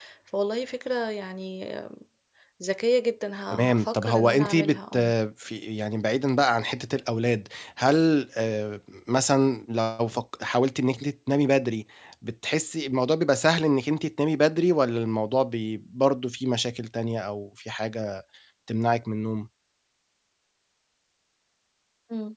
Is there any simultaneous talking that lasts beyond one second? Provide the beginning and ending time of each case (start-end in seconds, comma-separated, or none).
3.7-5.0